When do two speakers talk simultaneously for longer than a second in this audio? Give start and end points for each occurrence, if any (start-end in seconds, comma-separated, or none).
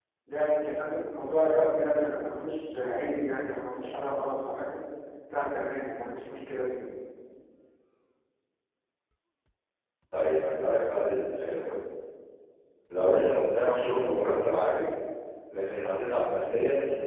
none